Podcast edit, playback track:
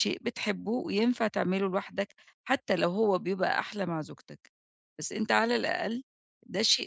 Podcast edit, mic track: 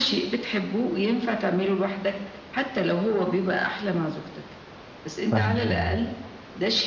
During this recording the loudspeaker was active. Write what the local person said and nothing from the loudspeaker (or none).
فاهمِك طبعًا.